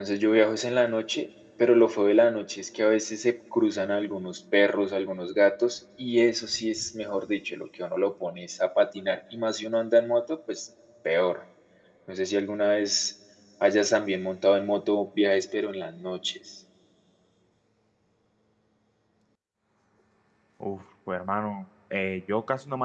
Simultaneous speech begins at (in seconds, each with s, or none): none